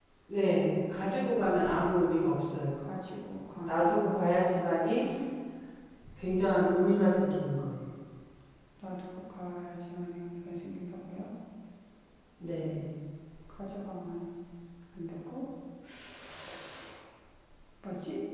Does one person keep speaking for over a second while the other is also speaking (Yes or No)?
No